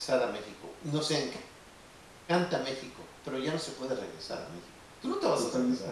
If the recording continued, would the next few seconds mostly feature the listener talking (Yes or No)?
Yes